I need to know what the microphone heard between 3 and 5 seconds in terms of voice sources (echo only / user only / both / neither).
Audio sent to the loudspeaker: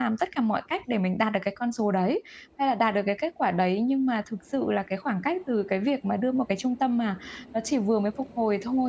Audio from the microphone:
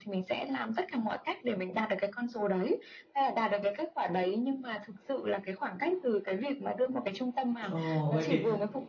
echo only